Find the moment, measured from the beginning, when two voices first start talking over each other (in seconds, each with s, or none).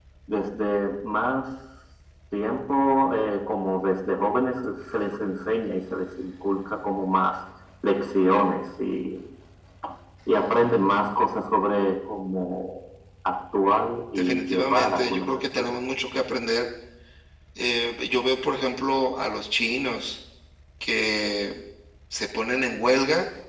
14.2 s